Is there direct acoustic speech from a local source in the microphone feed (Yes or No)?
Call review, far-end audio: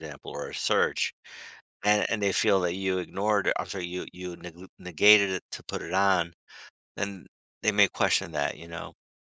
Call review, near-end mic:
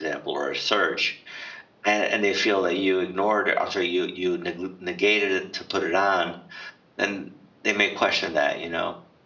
No